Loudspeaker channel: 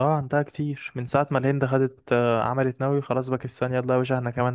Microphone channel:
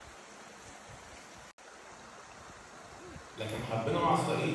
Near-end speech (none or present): present